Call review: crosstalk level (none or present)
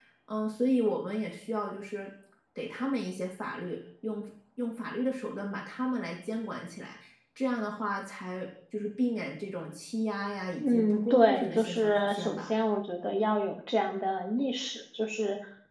present